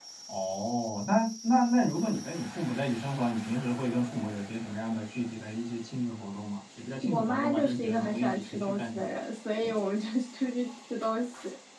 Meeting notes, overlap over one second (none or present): present